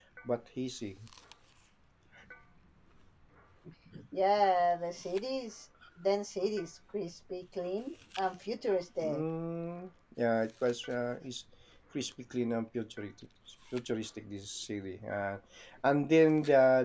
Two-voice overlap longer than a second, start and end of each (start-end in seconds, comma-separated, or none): none